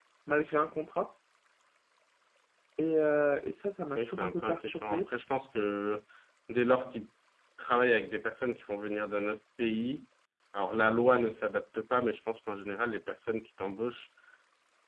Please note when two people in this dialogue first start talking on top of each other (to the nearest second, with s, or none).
4 s